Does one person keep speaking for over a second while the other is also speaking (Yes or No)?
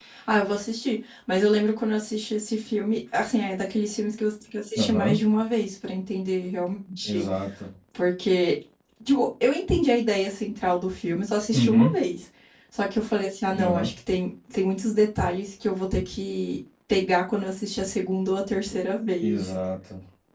No